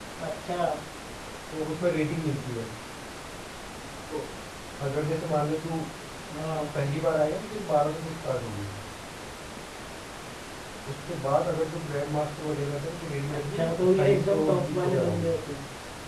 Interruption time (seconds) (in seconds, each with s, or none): 13.3 s